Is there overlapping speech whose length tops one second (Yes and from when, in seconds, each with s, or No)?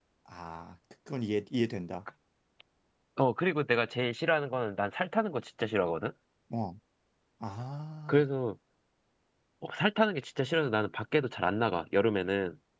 No